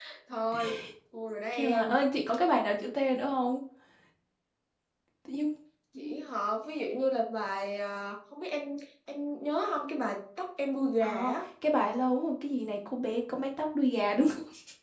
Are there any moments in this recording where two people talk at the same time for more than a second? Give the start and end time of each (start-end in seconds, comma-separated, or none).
none